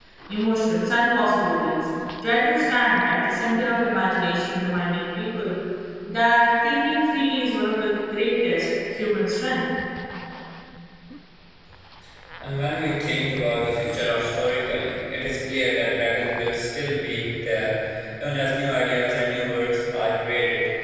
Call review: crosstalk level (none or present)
none